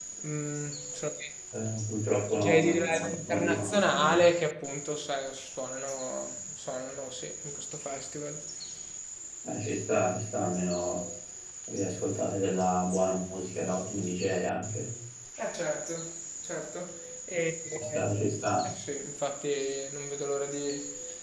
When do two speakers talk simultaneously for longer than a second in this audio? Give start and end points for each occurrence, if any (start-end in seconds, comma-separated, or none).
2.4-4.2